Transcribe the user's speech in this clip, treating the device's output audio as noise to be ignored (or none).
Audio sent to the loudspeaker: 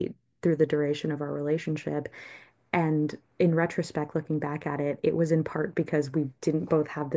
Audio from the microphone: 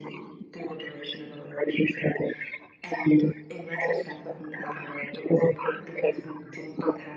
none